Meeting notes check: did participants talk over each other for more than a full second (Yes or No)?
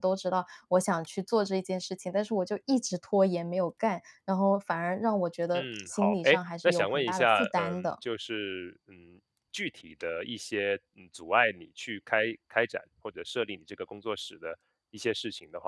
Yes